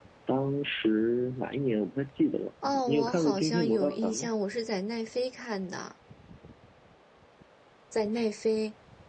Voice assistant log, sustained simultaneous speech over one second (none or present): present